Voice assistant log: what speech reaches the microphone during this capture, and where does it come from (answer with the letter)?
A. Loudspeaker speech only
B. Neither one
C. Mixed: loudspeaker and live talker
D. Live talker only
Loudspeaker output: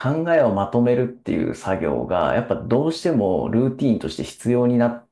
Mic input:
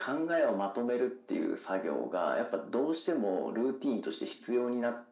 A